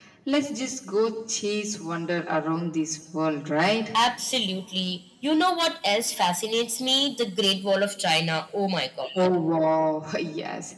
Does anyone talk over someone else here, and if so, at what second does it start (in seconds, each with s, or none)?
none